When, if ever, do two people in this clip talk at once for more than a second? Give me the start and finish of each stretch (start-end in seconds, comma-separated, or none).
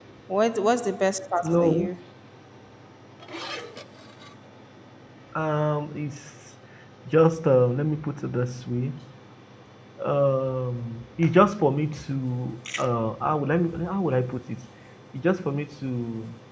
none